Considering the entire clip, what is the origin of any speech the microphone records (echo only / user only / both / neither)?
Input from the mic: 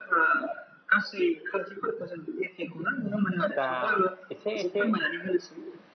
both